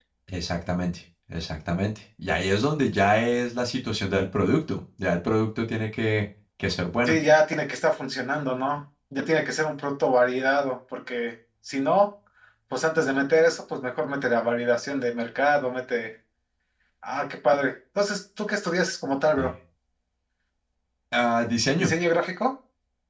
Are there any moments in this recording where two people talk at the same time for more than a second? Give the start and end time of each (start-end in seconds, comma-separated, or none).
none